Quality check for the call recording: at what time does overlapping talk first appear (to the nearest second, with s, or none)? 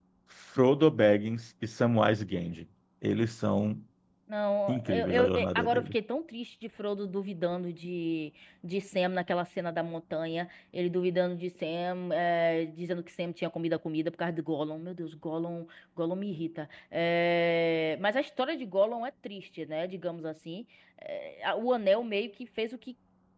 5 s